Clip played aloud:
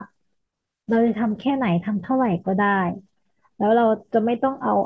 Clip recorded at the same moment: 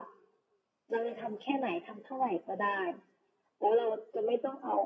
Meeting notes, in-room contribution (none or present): none